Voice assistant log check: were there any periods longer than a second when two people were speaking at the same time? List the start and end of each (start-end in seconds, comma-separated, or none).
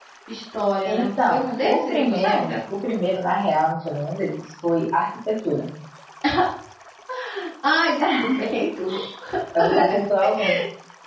0.8-2.6